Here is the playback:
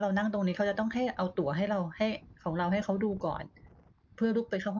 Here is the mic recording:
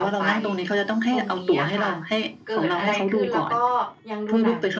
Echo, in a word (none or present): present